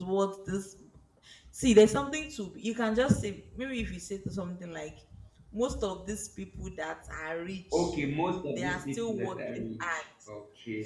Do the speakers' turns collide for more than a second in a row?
Yes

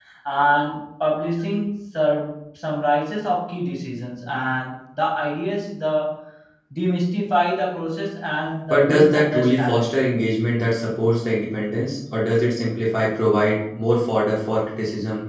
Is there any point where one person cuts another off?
Yes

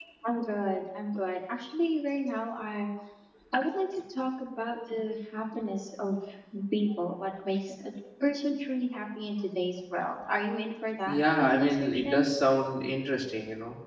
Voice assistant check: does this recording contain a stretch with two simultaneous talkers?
Yes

